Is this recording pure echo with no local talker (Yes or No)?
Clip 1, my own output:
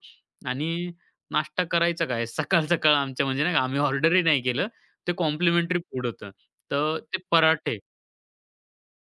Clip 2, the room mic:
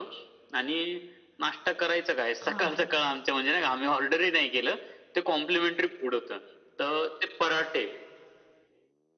No